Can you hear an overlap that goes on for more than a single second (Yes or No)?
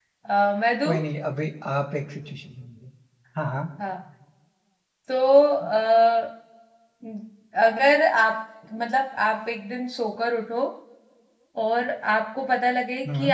No